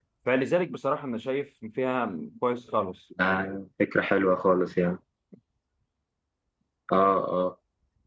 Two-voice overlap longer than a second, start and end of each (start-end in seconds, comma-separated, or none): none